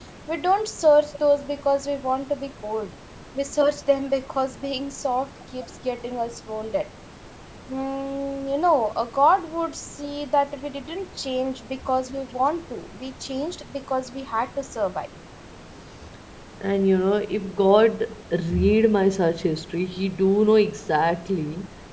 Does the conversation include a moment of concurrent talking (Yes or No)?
No